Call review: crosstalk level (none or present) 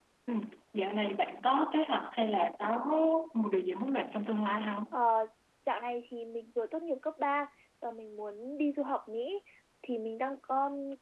none